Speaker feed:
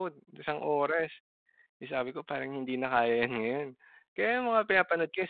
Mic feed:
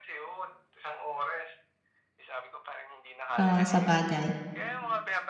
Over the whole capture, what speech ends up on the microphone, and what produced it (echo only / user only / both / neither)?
both